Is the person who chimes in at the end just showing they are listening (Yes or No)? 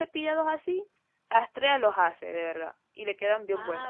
No